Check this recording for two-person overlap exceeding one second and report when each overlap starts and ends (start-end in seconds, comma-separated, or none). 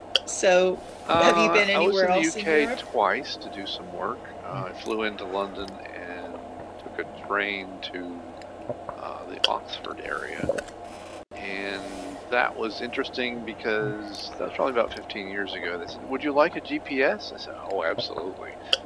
1.2-2.7